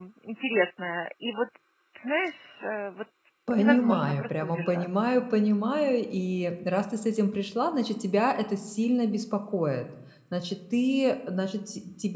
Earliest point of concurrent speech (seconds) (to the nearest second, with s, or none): 4 s